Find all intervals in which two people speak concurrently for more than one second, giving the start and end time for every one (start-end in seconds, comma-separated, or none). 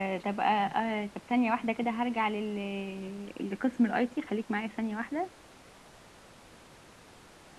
none